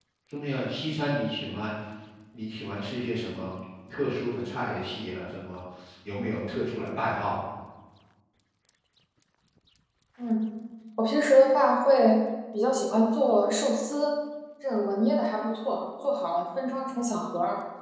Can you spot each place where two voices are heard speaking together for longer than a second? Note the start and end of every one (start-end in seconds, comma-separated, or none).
none